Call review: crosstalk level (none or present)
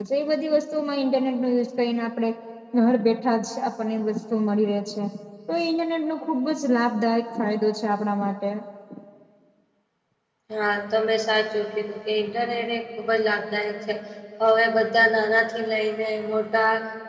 none